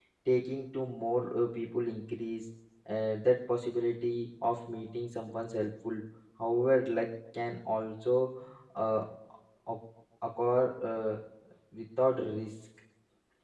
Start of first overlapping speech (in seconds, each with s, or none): none